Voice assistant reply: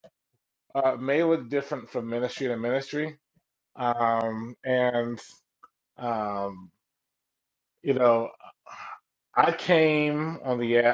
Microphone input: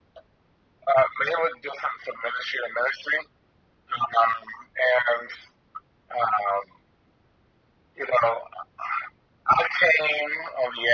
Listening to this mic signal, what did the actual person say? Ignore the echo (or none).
none